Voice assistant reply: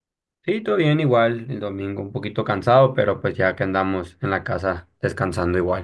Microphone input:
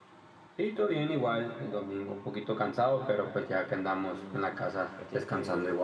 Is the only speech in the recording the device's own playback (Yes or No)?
No